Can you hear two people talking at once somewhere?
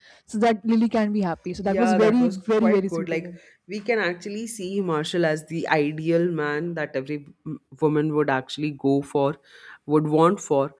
Yes, from 1.6 s

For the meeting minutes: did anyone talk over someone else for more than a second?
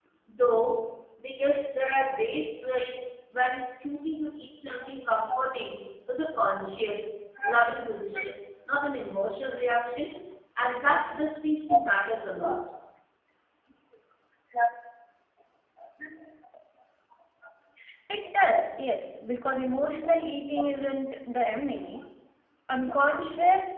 No

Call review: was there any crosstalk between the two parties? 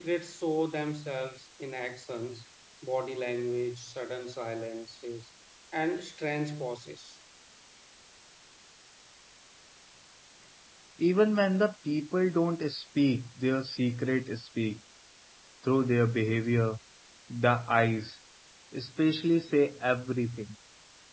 No

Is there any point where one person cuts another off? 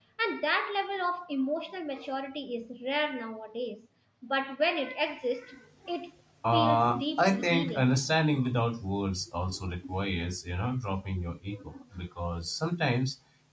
Yes, from 6.5 s

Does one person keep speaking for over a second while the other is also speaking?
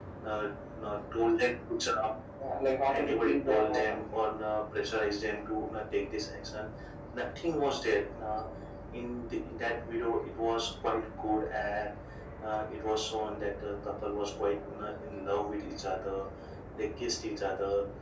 Yes, from 3.0 s

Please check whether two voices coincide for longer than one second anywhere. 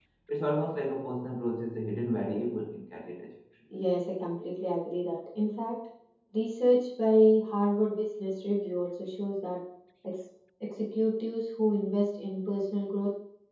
No

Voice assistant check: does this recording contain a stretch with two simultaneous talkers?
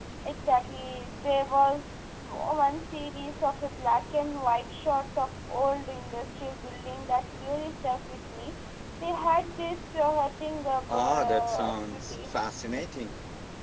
Yes, from 10.9 s

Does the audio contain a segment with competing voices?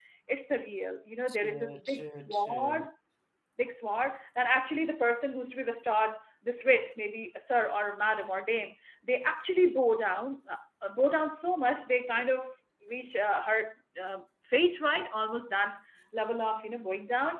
Yes, from 1.3 s

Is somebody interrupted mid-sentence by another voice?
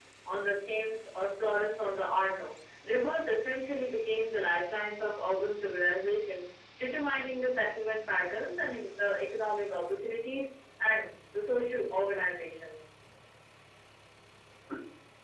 No

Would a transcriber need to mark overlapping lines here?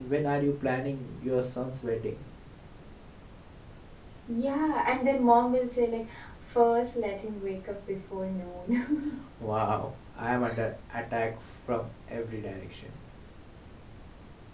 No

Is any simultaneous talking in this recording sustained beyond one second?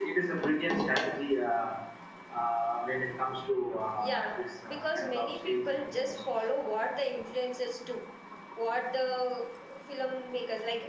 Yes, from 4.0 s

